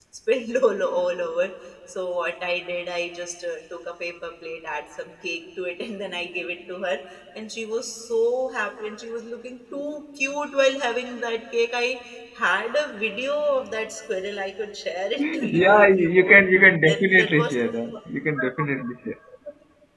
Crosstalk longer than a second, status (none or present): present